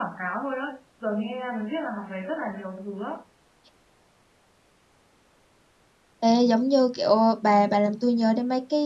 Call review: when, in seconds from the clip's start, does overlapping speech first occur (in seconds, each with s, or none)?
none